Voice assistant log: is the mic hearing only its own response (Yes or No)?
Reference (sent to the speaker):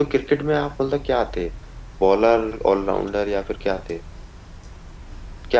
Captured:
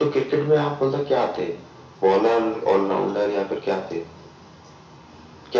Yes